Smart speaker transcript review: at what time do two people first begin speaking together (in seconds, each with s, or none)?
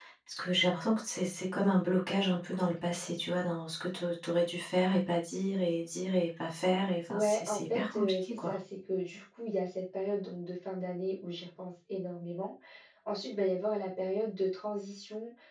7.1 s